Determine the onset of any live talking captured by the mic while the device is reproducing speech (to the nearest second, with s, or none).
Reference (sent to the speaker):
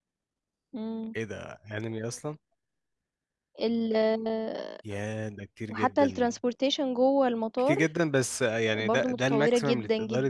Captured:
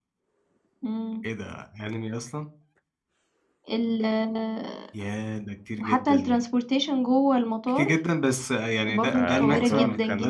9 s